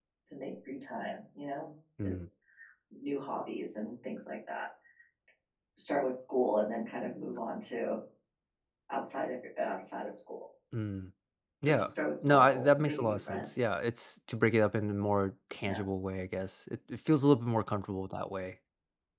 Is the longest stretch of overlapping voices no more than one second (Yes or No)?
No